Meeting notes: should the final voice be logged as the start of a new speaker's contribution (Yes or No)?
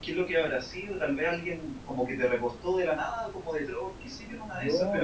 No